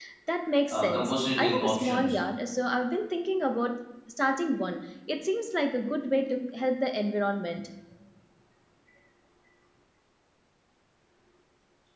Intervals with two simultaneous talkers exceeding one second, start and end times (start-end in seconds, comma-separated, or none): 0.7-2.1